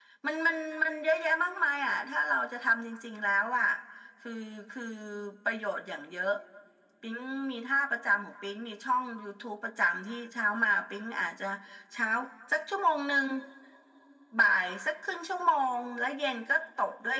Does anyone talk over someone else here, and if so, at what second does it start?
none

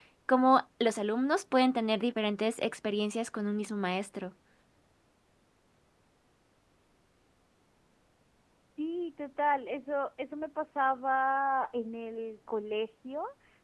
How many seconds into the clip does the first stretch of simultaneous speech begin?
none

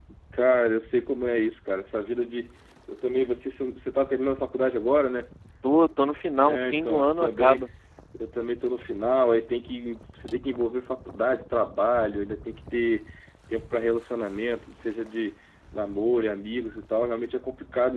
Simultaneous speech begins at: 6.5 s

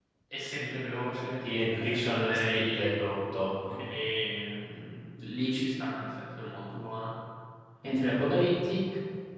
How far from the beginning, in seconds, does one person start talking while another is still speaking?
1.4 s

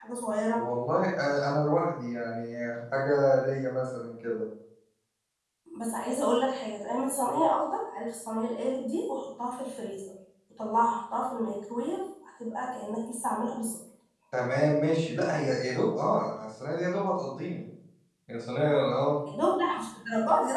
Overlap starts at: none

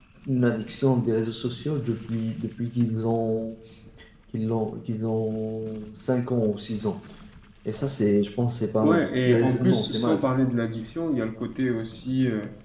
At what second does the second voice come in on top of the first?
8.8 s

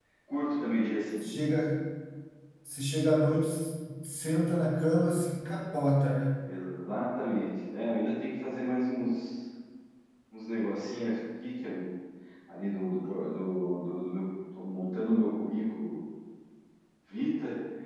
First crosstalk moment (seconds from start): none

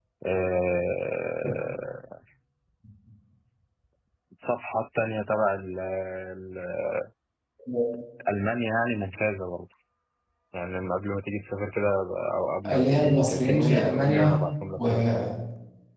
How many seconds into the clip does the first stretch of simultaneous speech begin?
12.7 s

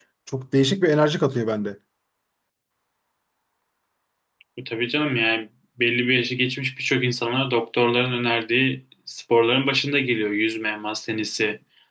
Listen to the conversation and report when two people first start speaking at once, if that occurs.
none

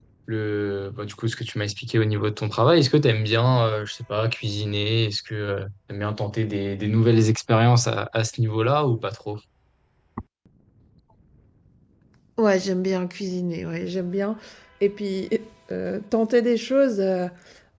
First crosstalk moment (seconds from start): none

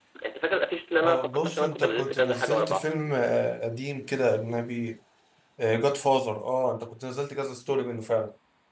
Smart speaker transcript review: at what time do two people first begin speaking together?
1.0 s

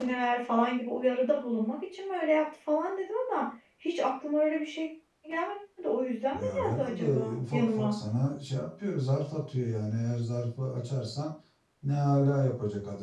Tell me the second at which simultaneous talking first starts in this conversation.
6.3 s

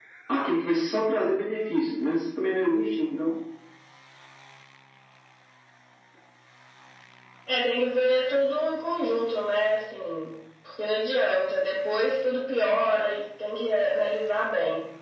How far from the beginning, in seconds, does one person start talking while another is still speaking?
none

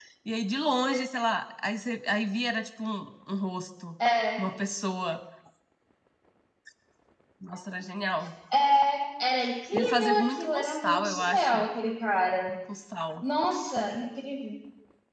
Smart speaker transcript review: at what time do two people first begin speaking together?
9.7 s

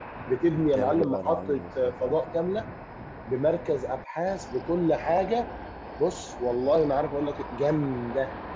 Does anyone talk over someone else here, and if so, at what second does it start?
0.6 s

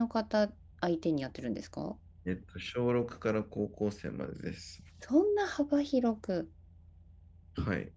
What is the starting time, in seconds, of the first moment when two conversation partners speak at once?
none

